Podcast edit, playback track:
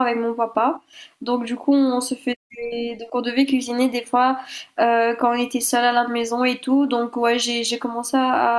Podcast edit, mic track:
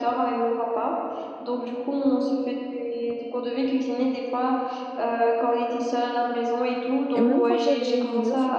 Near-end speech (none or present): present